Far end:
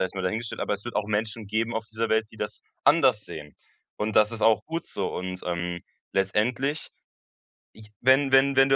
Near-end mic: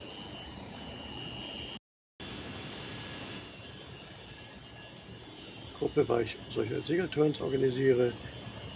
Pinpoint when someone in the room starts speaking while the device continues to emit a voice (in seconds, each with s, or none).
5.7 s